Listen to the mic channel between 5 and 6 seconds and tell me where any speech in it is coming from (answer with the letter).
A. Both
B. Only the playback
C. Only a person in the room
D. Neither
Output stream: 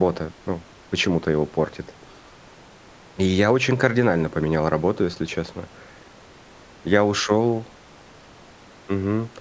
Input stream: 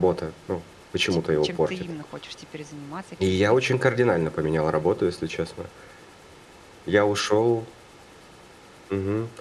B